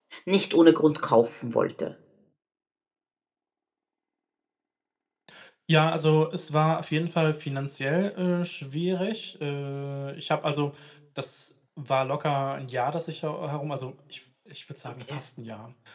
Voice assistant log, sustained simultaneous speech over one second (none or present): none